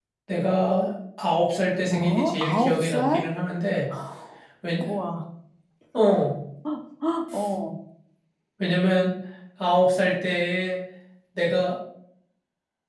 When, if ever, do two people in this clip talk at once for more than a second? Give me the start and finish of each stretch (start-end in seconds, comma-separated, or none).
1.9-3.2